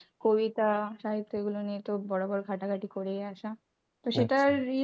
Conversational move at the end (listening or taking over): listening